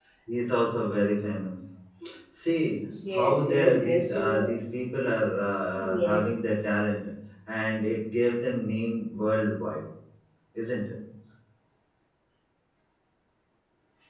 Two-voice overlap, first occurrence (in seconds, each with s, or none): 3.1 s